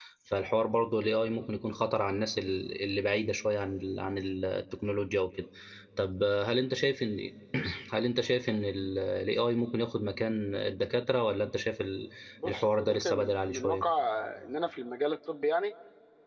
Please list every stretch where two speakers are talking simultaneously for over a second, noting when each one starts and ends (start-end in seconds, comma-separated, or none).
12.4-13.9